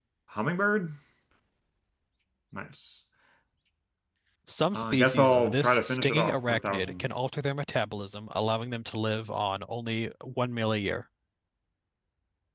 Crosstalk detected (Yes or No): Yes